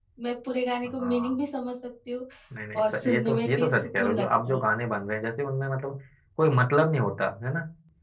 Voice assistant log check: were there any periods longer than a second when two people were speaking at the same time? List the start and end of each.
2.8-4.6

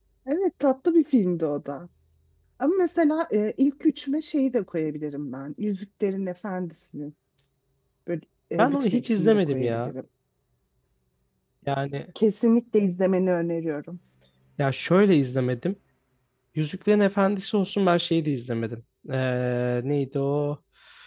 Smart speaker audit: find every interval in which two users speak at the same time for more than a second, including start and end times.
8.6-9.9

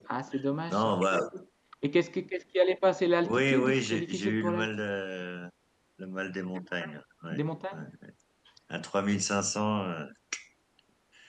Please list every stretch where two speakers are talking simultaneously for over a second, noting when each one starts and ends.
3.2-4.7

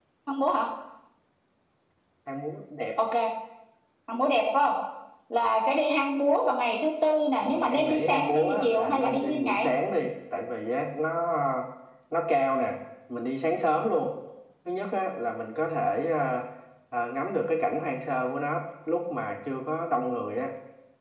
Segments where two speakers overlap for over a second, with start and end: 7.4-9.7

